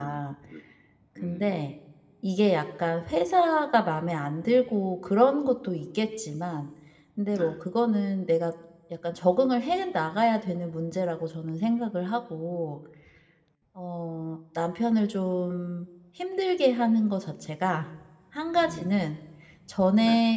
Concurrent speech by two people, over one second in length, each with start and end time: none

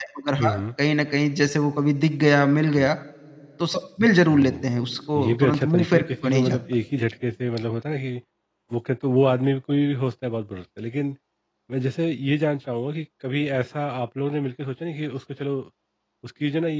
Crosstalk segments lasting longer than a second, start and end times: 5.2-6.6

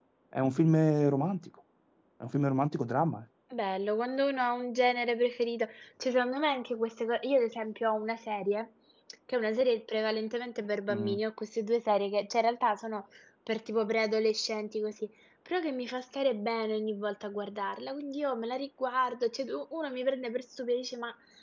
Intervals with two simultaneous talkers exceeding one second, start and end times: none

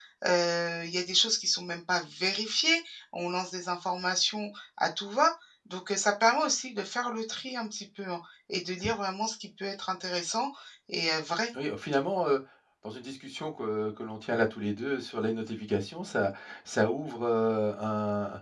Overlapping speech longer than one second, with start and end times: none

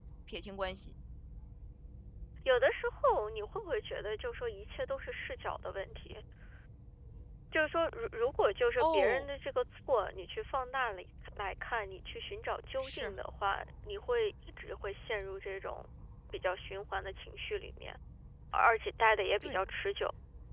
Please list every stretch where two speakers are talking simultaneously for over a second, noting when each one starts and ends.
none

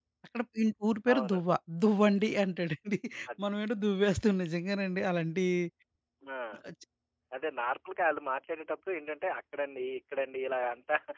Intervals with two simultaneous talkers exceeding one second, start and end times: none

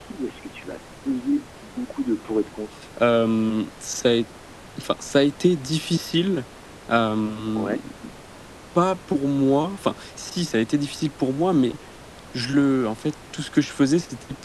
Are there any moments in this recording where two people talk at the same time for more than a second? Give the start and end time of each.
none

